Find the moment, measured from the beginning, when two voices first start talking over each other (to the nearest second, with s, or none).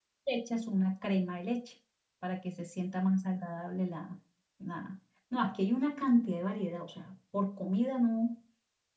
none